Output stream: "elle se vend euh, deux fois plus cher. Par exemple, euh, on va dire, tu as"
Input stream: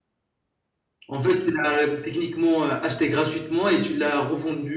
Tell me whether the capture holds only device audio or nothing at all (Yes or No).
No